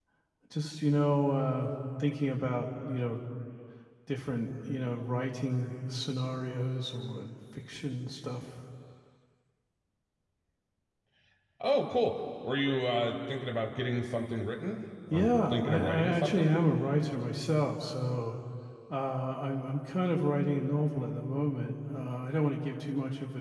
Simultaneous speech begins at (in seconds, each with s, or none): 15.1 s